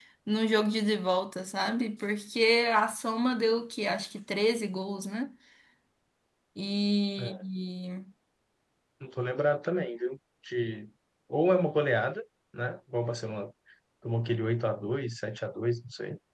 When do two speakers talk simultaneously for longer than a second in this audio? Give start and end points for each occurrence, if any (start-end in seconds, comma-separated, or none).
none